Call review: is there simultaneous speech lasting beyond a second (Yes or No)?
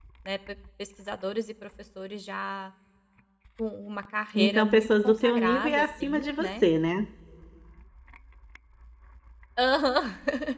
Yes